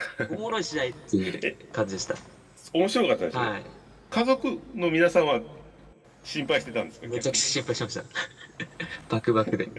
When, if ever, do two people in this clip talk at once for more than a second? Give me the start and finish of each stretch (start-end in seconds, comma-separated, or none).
none